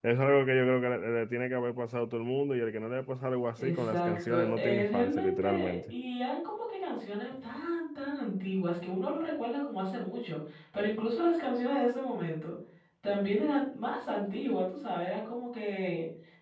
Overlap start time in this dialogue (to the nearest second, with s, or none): 4 s